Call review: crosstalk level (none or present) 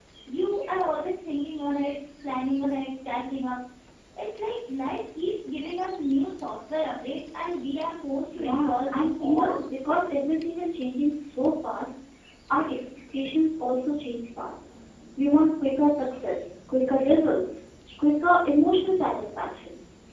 present